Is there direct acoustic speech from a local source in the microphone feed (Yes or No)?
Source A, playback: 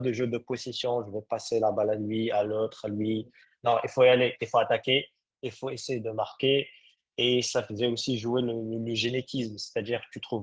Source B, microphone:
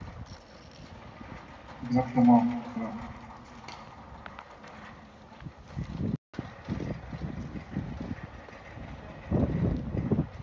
Yes